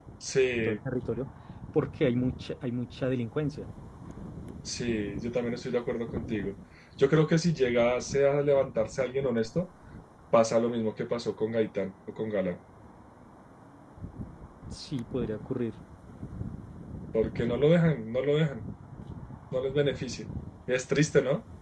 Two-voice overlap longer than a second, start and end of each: none

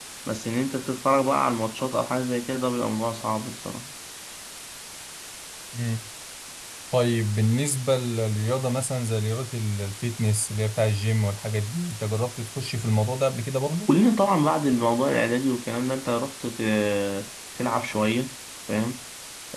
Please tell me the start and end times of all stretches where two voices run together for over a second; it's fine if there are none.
none

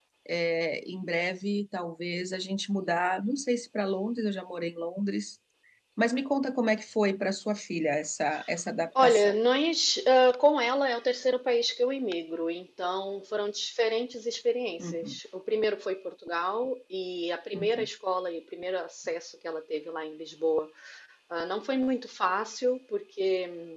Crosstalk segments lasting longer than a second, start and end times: none

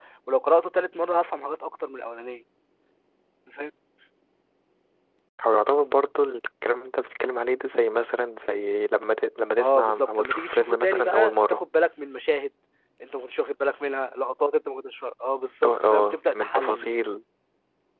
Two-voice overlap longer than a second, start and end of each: 9.6-11.6, 15.6-17.1

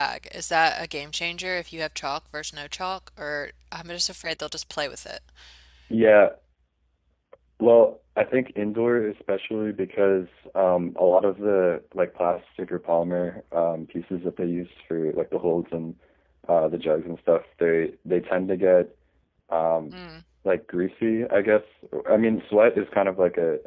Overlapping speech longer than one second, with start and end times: none

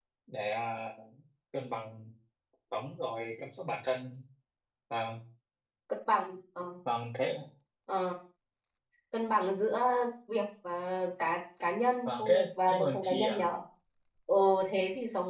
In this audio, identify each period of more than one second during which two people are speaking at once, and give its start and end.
12.1-13.4

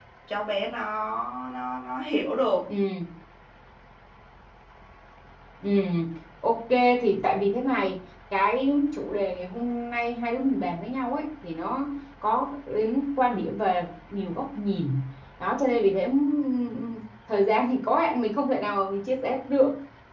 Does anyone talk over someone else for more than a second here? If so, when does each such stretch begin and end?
none

